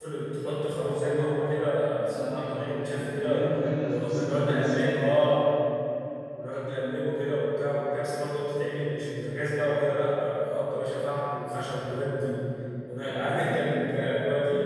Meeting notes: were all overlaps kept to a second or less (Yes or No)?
No